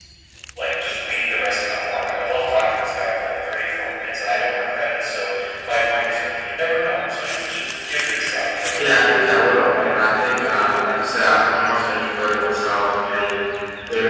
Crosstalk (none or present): present